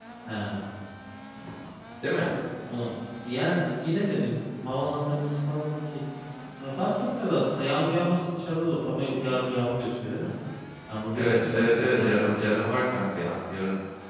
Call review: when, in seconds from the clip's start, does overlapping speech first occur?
11.1 s

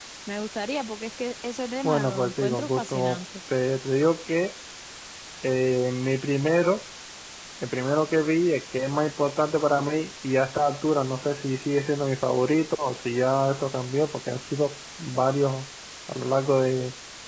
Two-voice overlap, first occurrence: 1.8 s

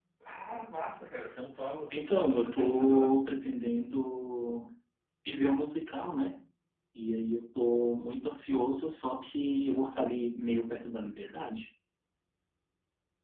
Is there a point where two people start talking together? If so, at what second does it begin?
1.9 s

